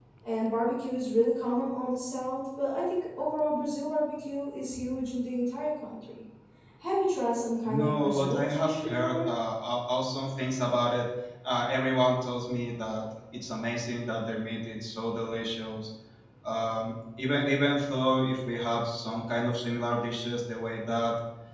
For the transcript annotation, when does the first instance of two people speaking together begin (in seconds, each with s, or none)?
7.6 s